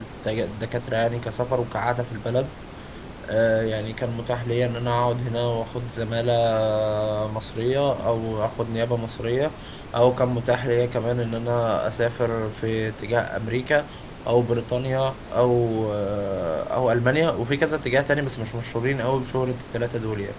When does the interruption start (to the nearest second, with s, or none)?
none